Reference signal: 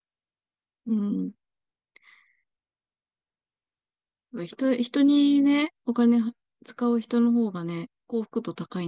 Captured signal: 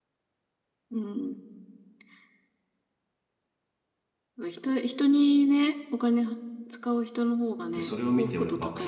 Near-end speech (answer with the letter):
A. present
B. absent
A